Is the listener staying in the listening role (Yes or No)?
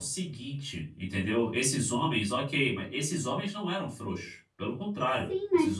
No